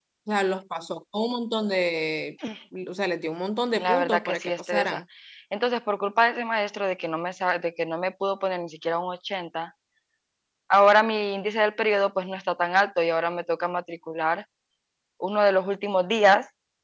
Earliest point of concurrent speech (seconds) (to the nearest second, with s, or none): 4 s